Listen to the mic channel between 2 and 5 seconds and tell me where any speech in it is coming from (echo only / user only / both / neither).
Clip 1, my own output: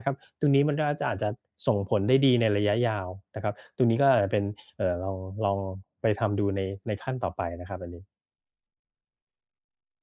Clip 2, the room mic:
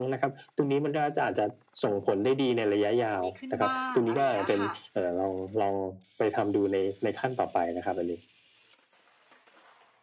both